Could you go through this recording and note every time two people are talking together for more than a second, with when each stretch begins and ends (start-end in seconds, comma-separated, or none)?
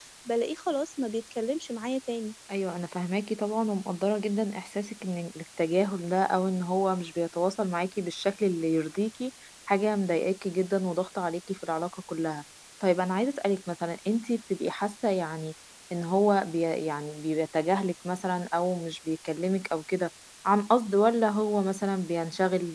none